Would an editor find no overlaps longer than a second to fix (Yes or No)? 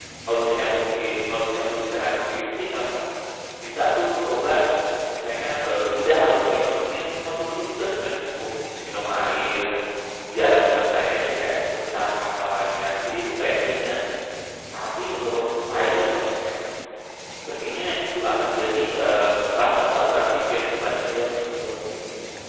Yes